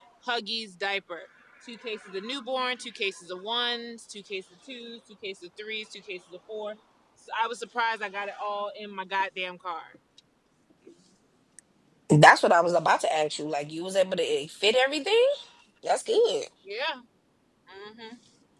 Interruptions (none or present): none